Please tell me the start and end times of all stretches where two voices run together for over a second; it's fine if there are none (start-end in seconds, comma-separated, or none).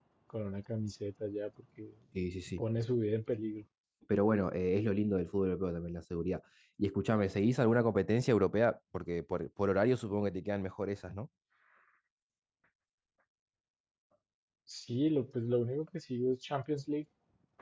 none